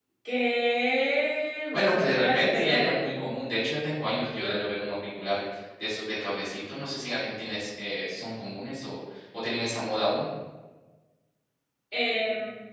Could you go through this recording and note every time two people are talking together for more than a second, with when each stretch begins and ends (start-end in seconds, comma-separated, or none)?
1.7-3.0